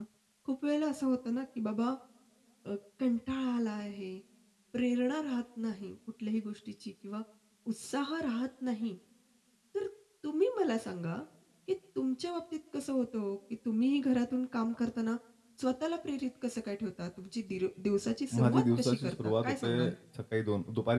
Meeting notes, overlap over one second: present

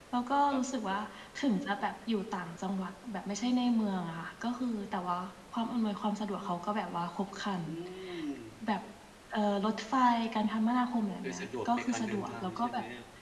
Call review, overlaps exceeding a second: present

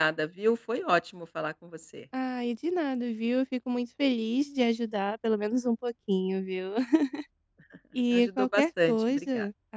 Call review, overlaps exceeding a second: present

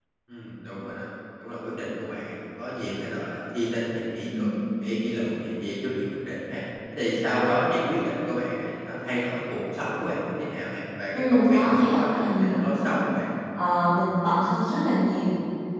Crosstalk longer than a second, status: present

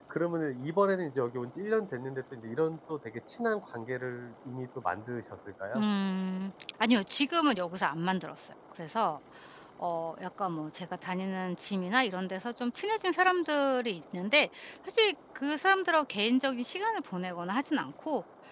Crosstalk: none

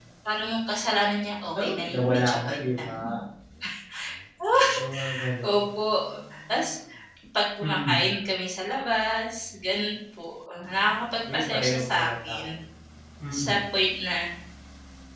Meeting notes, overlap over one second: present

